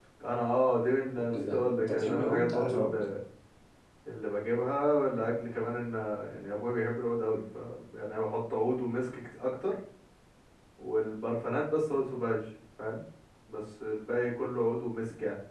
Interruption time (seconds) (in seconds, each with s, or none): 1.2 s